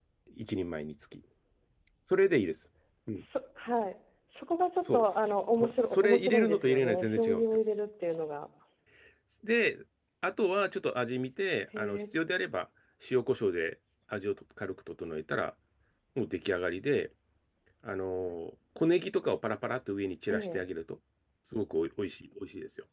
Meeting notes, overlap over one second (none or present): present